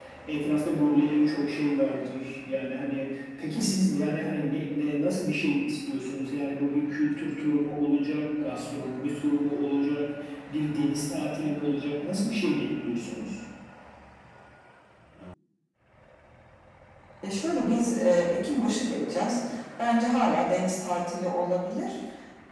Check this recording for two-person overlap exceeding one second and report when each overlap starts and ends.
none

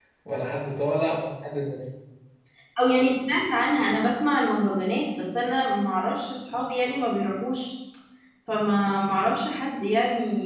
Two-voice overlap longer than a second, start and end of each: none

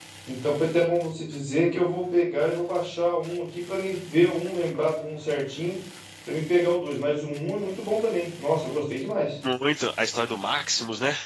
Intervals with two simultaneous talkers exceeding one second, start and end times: none

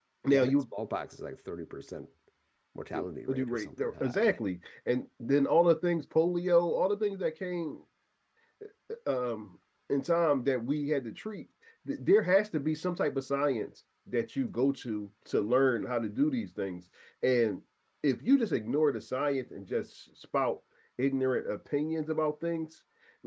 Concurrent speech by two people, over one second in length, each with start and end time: 2.9-4.4

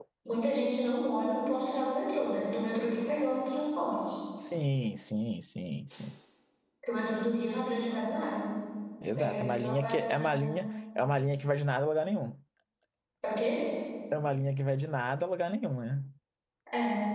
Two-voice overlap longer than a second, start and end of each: 9.2-10.5

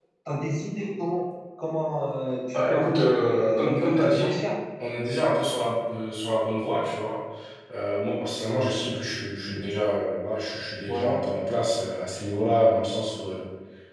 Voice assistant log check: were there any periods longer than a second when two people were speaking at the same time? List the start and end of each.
2.5-4.4

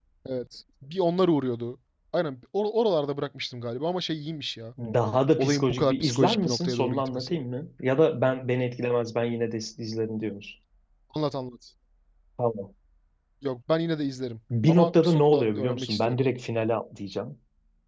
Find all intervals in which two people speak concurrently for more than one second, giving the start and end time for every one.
5.4-7.4, 14.7-16.2

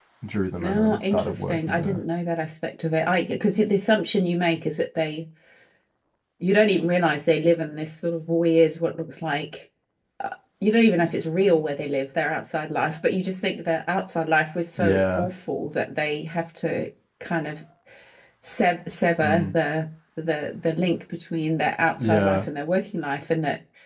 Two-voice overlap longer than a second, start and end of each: 0.6-2.0

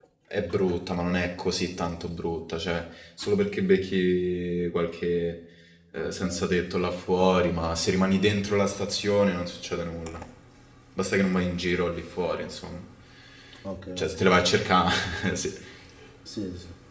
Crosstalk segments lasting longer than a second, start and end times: none

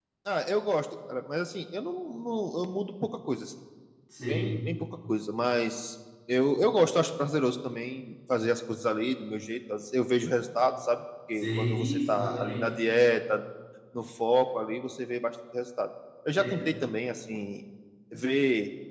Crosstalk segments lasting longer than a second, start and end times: 11.3-12.7

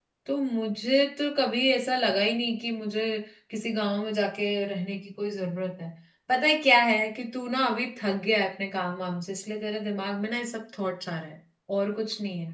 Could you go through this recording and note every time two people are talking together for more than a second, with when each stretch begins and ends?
none

